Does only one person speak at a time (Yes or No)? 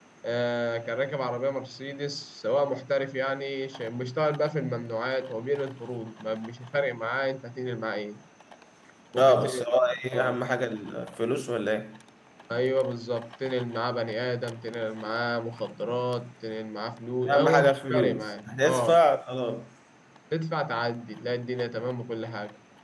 No